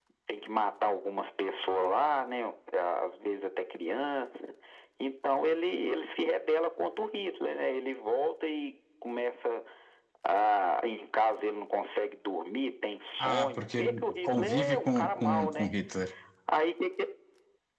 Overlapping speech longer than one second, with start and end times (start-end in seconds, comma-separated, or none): 13.2-15.7